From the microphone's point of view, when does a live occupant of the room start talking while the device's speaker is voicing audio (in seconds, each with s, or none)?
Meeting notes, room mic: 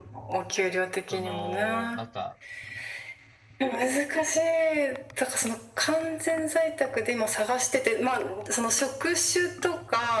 1.1 s